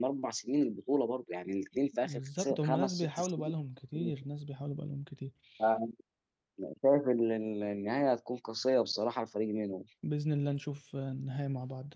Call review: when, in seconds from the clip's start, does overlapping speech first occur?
2.0 s

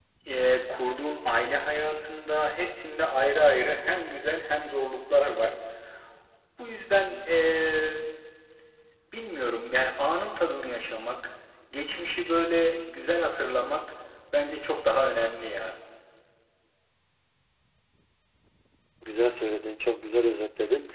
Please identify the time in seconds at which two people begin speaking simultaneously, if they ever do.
none

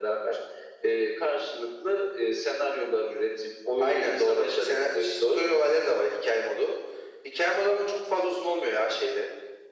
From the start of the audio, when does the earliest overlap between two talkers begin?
3.8 s

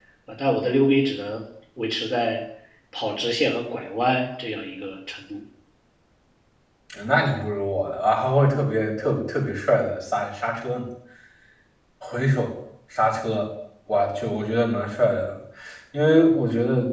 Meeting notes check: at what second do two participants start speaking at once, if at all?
none

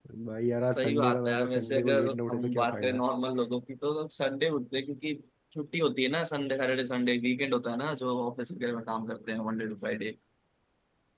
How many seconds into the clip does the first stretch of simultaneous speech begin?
0.6 s

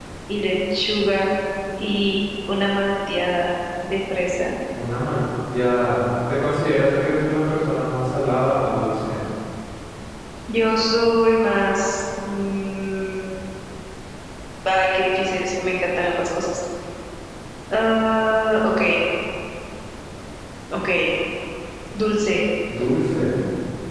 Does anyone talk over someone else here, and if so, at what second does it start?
none

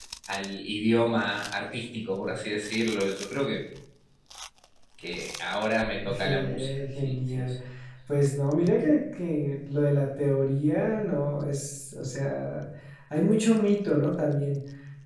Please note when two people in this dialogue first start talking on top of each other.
6.0 s

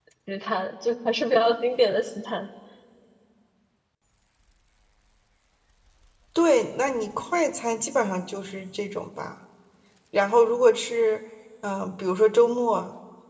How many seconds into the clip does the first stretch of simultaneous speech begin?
none

